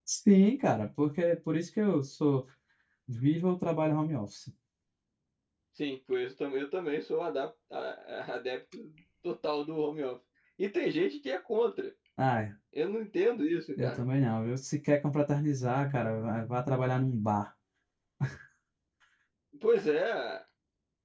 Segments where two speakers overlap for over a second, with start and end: none

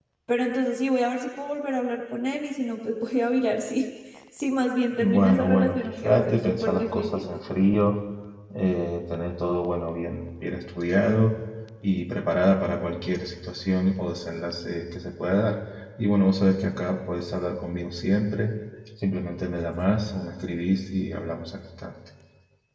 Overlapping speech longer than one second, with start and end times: 5.0-7.2

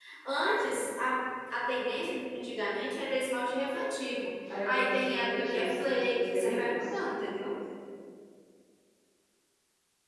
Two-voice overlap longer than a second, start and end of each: 4.5-7.0

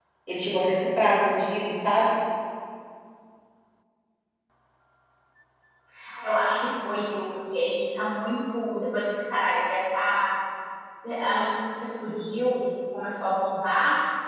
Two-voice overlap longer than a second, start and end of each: none

